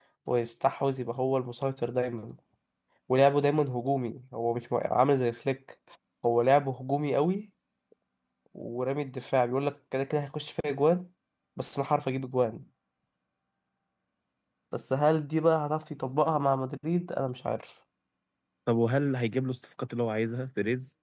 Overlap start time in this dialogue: none

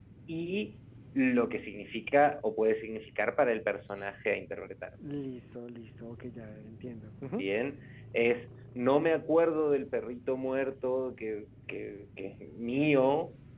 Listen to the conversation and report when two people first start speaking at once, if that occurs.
none

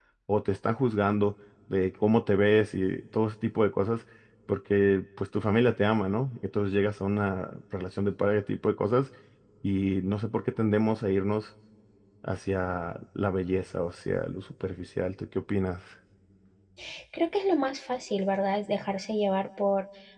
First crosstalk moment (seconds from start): none

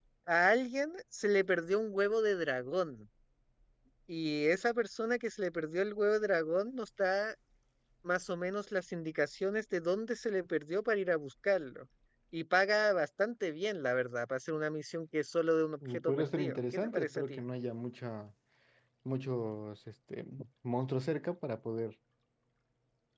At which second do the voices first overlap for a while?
16 s

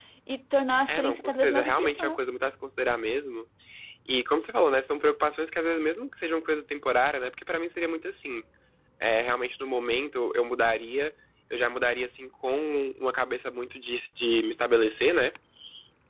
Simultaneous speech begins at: 1 s

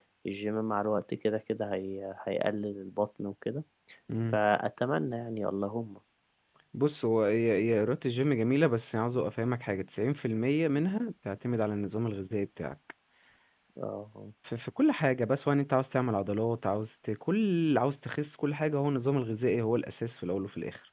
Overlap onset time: none

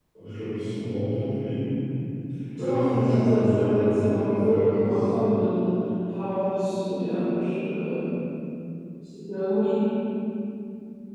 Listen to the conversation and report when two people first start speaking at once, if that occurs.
3 s

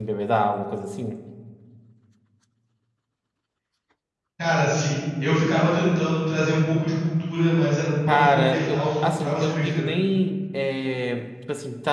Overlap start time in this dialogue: 8 s

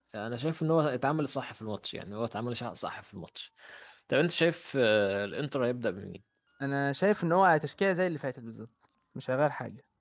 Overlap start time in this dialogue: none

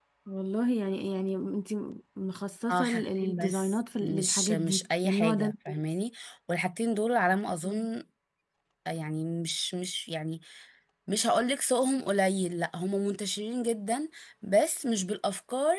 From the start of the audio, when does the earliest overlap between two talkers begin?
3 s

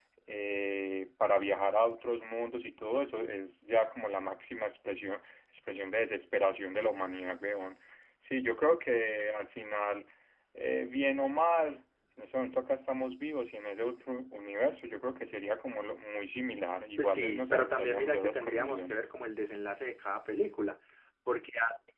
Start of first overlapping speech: 17 s

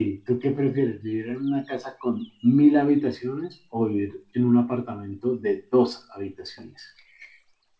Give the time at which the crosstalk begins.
none

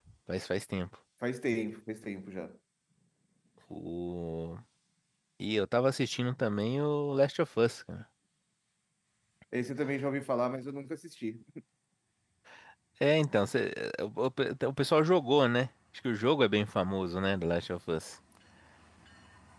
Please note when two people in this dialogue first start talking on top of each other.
none

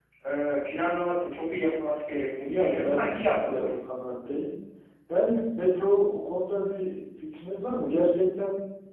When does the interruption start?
2 s

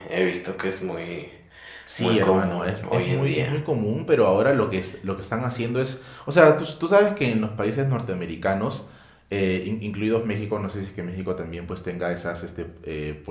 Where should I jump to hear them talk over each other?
2 s

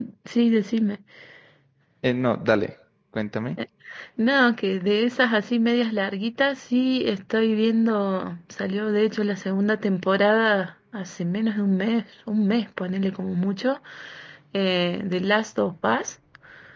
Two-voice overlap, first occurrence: none

